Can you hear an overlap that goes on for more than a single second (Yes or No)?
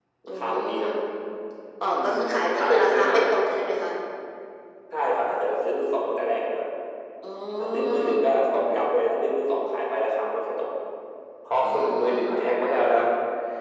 Yes